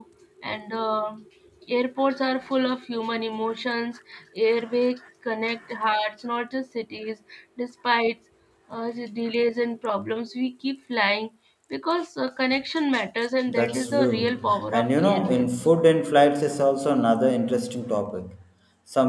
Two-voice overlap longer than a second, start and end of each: 13.5-15.5

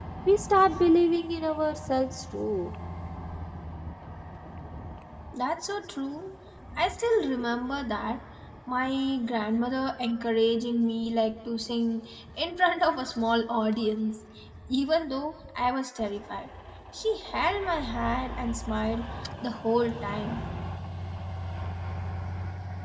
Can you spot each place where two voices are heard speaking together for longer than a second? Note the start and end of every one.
none

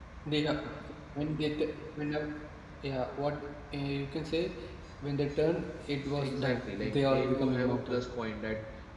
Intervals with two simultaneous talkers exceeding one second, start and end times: 6.2-8.0

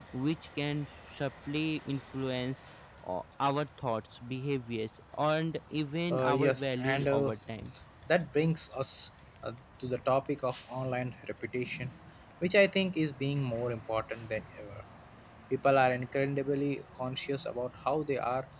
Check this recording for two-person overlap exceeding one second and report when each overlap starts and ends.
6.1-7.3

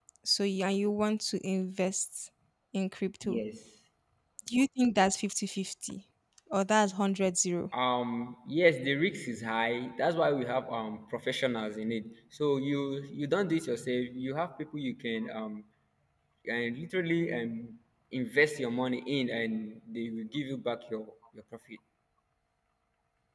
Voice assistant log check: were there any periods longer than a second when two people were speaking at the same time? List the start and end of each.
none

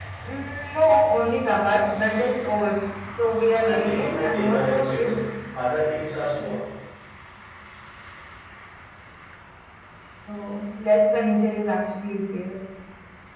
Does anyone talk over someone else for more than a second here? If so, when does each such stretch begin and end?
3.6-5.1

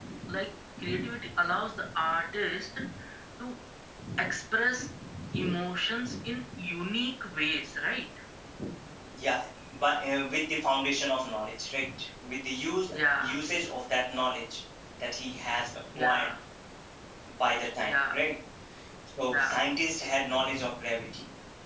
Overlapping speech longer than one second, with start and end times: none

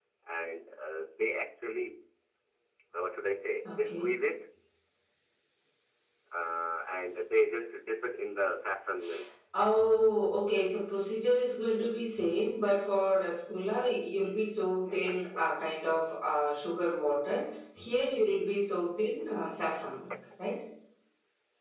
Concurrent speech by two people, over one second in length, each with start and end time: none

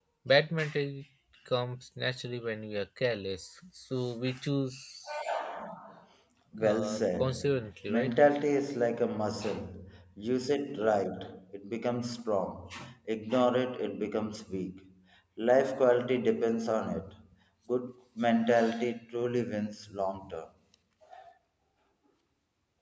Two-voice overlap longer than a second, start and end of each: 6.6-8.1

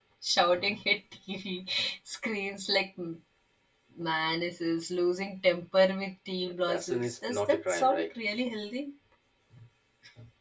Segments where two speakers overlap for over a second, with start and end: 6.7-8.1

